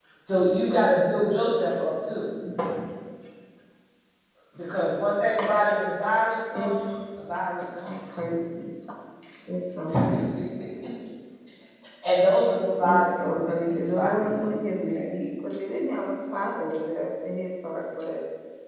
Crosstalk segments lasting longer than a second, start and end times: 12.8-14.3

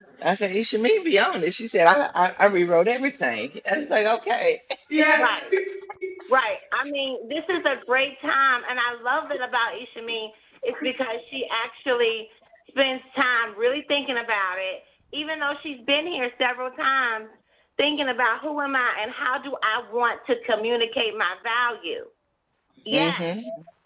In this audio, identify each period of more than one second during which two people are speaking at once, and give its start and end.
none

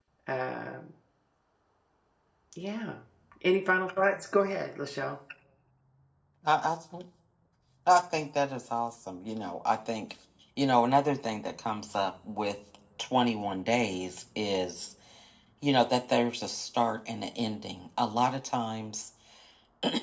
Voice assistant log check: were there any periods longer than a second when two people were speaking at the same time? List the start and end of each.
none

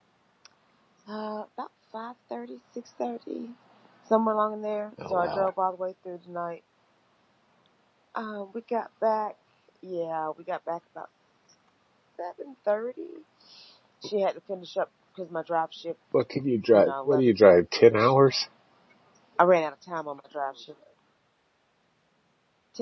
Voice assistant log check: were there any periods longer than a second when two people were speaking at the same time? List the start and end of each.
16.7-18.1

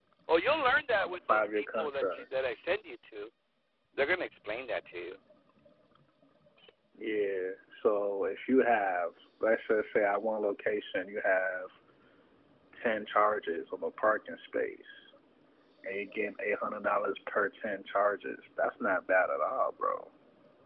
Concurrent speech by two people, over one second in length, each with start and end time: 1.0-2.2

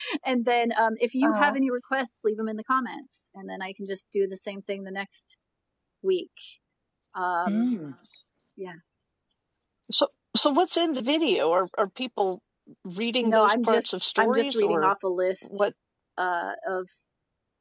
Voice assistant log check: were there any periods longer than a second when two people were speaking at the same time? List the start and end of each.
13.2-14.9

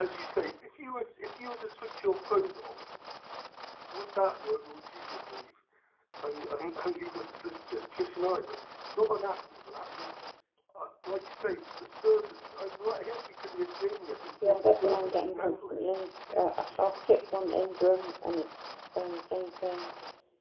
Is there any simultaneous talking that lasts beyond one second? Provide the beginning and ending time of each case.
14.4-15.8

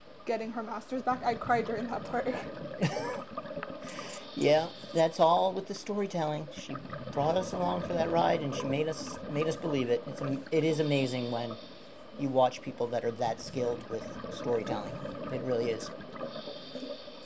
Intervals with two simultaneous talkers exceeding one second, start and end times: none

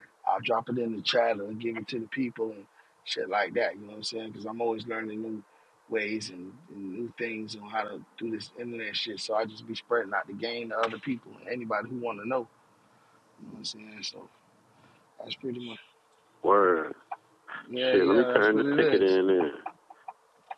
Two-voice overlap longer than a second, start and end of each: 17.8-19.2

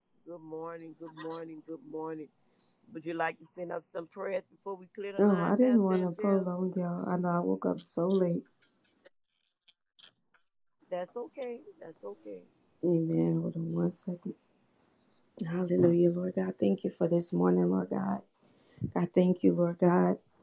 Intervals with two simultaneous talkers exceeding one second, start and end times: 5.2-6.4

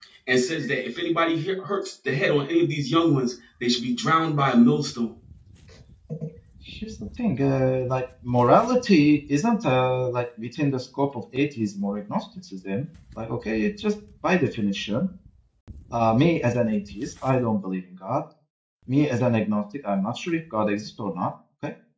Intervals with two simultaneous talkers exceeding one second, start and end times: none

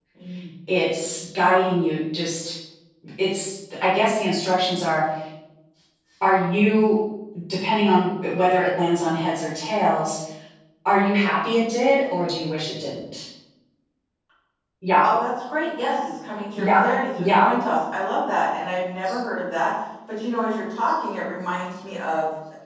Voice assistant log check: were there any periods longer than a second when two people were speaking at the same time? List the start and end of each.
none

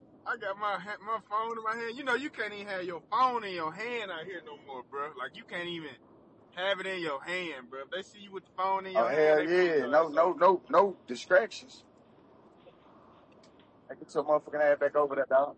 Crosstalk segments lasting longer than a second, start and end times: 8.9-10.2

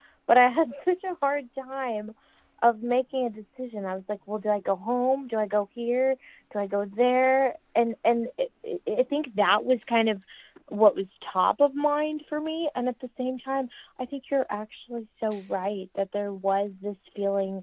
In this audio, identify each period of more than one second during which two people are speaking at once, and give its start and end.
none

